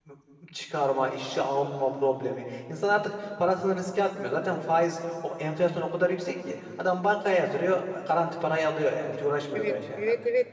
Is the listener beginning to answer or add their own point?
Yes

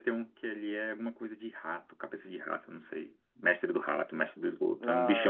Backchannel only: Yes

